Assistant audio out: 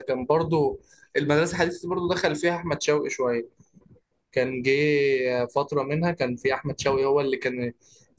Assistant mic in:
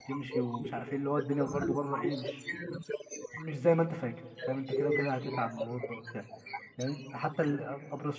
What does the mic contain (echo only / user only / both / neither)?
both